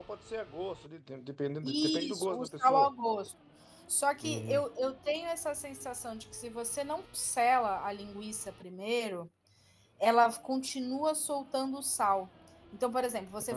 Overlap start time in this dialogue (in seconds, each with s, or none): 1.6 s